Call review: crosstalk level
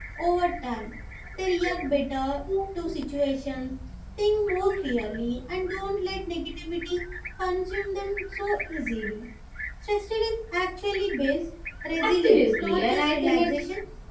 present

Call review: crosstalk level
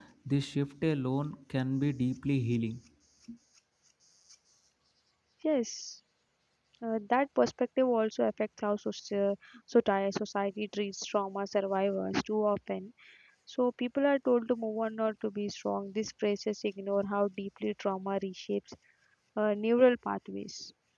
none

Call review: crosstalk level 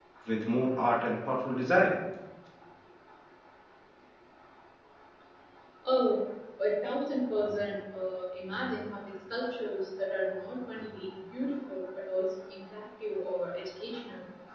none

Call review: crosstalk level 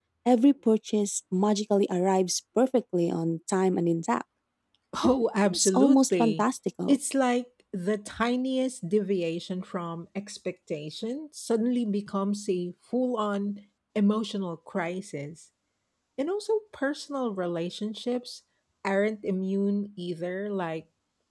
present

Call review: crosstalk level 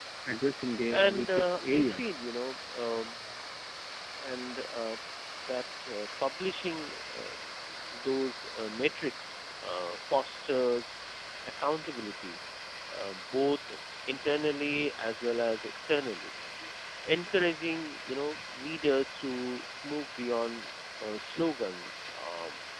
present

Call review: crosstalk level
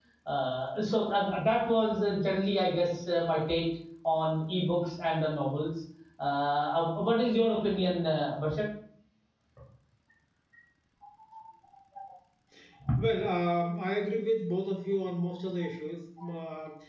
none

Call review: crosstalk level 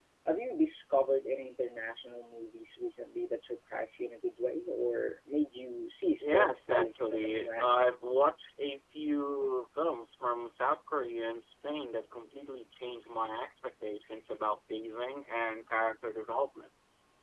present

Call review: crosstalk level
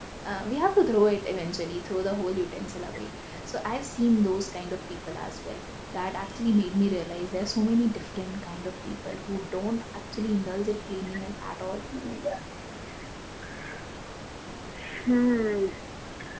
none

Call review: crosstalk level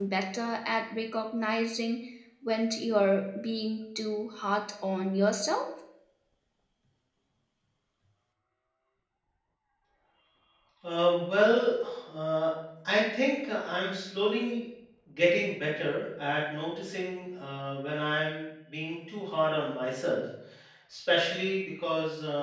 none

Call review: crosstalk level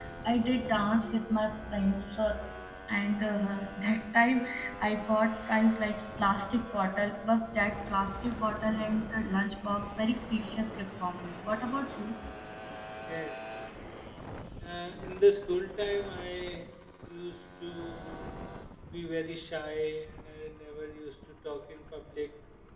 none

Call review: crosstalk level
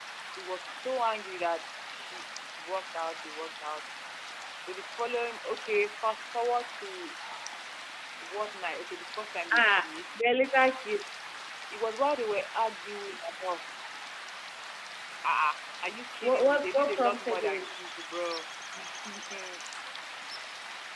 present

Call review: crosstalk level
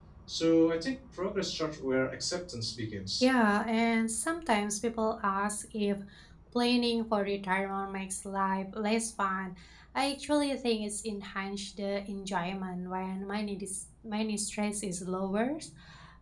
none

